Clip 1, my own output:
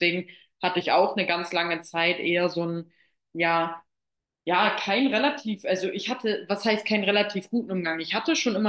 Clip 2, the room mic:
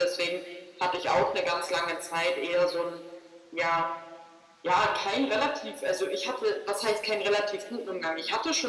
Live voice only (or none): none